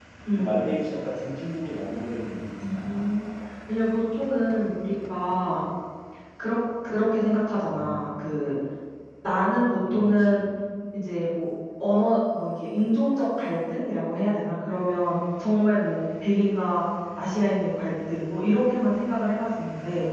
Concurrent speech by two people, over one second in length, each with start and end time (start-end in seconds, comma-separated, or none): none